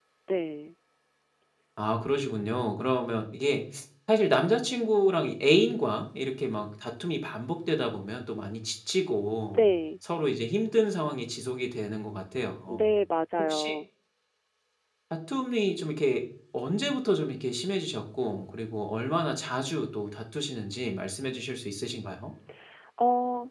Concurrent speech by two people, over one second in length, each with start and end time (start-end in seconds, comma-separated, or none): none